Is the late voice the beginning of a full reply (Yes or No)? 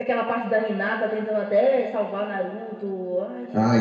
Yes